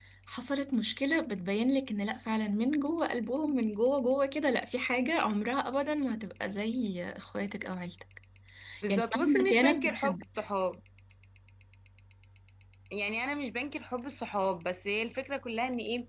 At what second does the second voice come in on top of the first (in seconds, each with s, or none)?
8.9 s